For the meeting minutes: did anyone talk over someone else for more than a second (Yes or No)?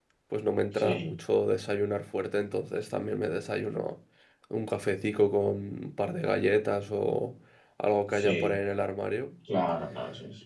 No